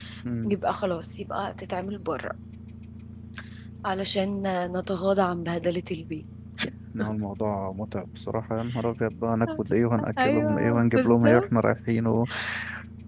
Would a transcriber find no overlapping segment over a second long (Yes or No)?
No